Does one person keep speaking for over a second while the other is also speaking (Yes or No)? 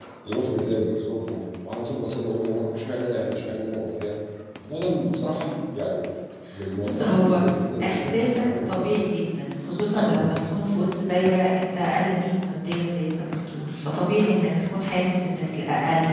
Yes